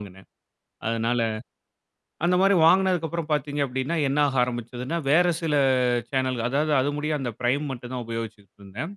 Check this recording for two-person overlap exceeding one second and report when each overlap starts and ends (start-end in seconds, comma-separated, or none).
none